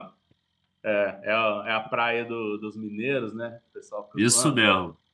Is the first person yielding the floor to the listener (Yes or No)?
Yes